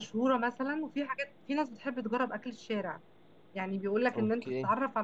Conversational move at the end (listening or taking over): listening